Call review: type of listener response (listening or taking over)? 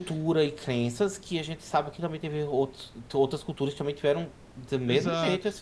taking over